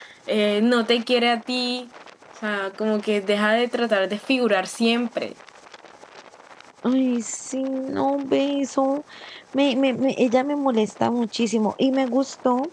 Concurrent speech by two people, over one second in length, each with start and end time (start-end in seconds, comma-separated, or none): none